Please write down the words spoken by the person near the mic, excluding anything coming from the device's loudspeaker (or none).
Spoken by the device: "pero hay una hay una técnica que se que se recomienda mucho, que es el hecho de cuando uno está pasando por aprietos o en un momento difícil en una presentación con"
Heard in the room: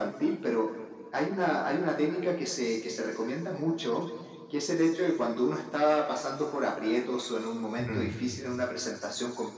Mm,